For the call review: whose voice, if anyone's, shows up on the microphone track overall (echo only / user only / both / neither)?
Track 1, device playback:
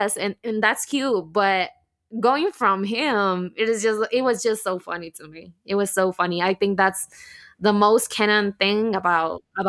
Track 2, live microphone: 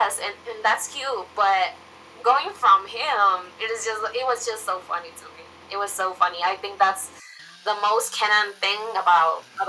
echo only